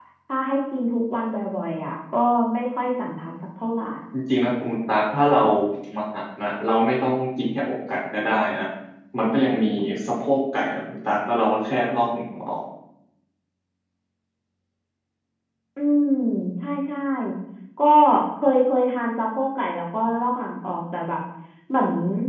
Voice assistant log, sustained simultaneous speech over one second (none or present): none